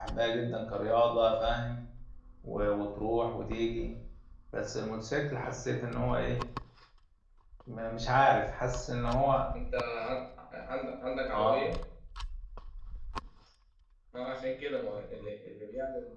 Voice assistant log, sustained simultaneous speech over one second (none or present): none